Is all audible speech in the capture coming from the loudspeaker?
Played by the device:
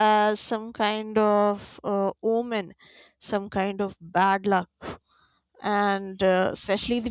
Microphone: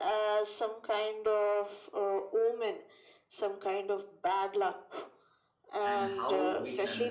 No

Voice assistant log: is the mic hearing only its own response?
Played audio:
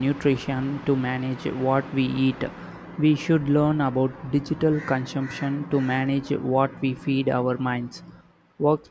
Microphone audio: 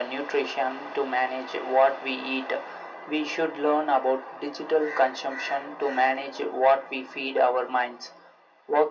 Yes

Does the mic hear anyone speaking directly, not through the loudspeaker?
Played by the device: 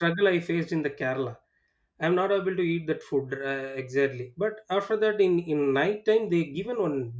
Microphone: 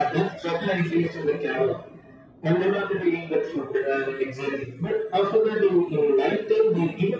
No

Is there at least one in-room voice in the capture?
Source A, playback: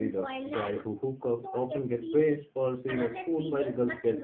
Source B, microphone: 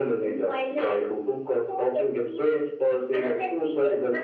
No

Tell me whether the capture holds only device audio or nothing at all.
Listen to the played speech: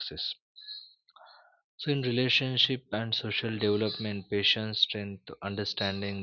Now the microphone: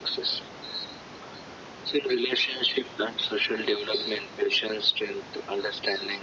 Yes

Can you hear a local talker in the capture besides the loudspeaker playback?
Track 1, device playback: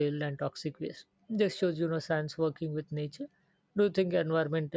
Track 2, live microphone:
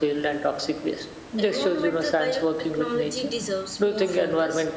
Yes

